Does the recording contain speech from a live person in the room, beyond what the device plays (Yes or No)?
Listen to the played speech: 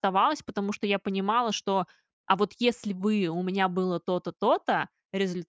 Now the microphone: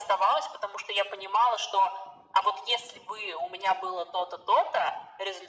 No